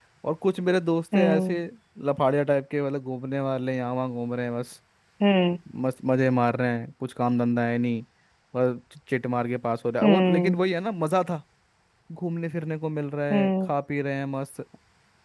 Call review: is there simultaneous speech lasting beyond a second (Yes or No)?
No